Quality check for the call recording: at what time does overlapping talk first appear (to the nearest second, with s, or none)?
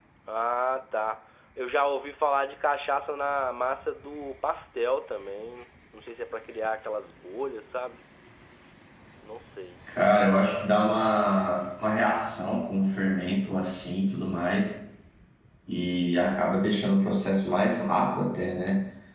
none